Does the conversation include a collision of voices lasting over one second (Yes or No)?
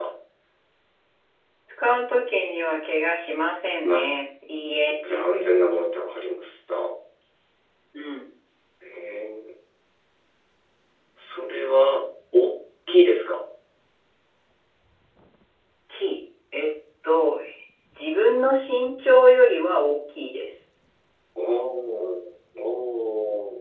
No